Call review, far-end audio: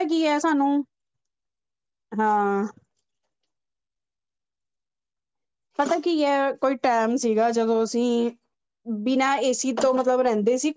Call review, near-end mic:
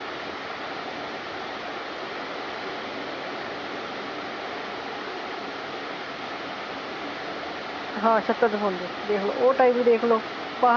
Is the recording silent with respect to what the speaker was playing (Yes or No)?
Yes